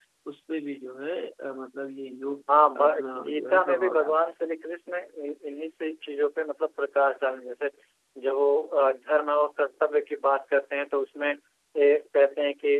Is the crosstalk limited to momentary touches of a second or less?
No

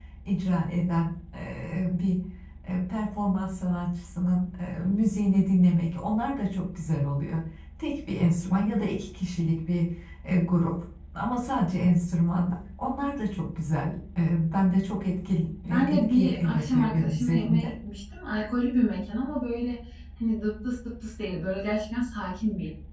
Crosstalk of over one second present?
Yes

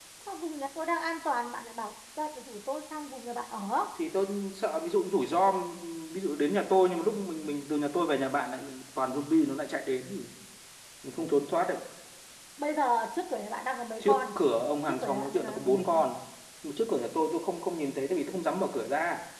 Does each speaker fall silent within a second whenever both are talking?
No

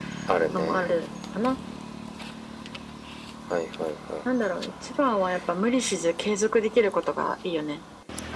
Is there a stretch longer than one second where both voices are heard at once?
No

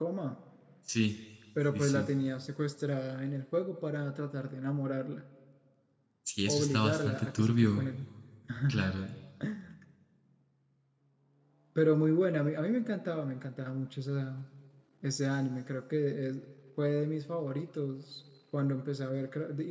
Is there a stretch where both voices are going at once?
Yes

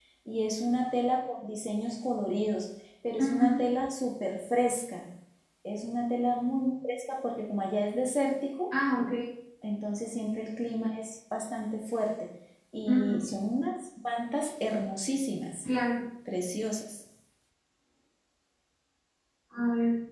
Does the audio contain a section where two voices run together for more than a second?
No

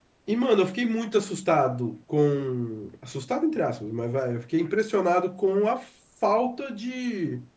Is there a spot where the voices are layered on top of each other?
No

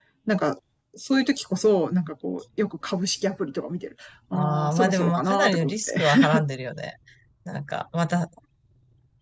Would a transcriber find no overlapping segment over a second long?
No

